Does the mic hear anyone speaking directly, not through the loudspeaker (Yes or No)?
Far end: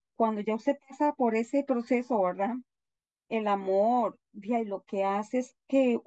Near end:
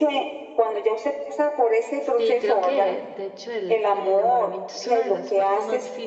Yes